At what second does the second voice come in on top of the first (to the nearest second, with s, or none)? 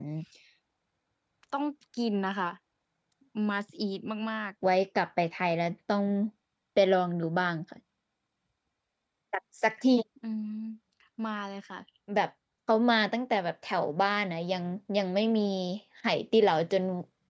none